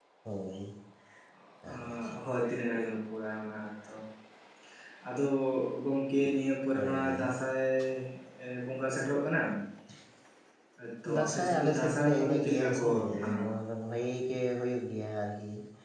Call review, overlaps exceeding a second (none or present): present